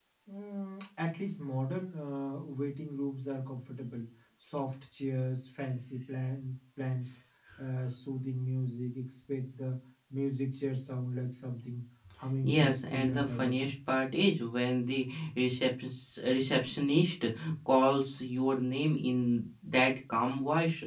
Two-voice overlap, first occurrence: 12.4 s

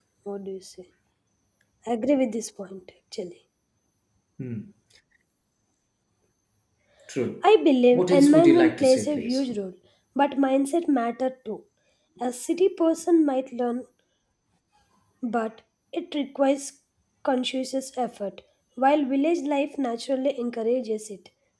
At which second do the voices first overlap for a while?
7.9 s

